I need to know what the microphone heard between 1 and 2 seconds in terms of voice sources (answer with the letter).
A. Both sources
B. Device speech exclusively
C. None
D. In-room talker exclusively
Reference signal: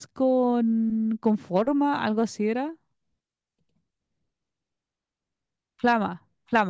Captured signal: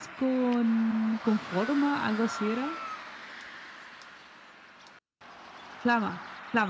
B